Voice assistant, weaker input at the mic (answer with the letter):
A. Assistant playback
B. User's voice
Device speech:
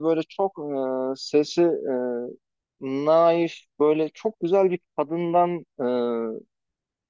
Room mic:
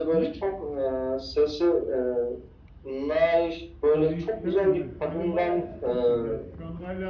B